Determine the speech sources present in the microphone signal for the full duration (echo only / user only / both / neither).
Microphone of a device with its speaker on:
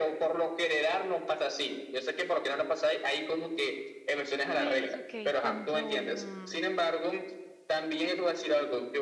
both